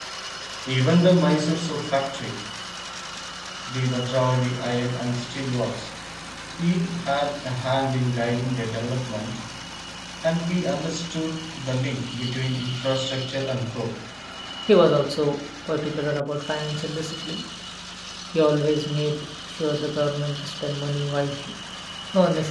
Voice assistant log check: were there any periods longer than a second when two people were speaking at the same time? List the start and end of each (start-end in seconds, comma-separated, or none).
none